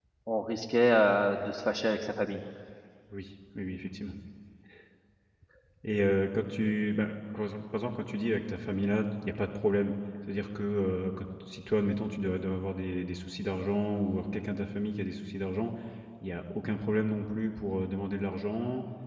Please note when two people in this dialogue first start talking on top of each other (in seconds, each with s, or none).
none